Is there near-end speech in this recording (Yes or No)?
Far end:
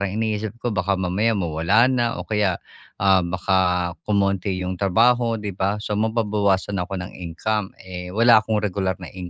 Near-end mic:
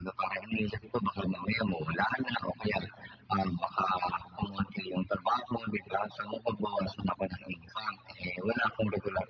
No